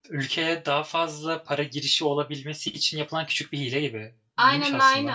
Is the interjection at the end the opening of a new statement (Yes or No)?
Yes